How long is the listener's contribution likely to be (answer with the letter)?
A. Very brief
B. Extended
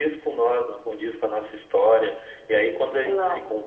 A